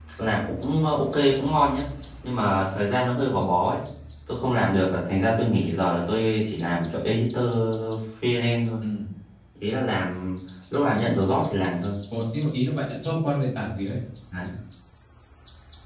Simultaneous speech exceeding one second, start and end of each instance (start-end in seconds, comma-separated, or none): none